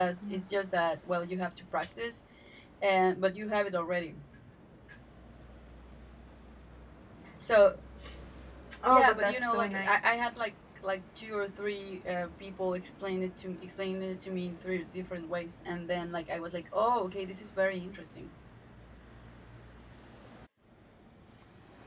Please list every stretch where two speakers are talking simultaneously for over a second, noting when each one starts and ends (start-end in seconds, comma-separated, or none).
8.9-10.2